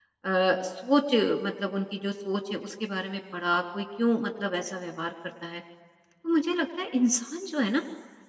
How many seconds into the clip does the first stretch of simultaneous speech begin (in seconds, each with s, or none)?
none